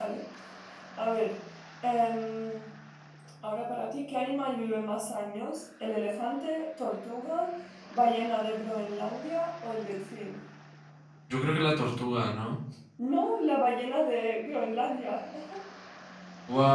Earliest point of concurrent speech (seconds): none

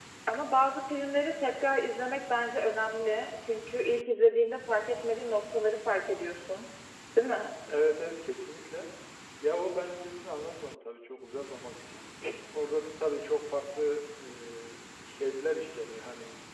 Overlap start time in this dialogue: none

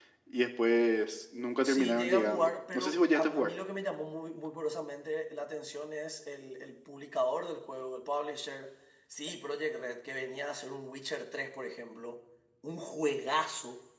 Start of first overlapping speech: 1.6 s

